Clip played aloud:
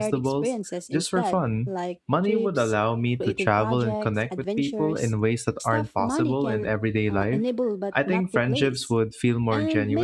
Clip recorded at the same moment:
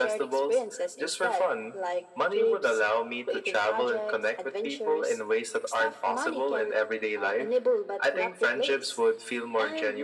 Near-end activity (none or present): none